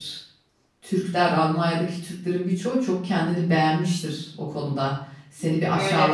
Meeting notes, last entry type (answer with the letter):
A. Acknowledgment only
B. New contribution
A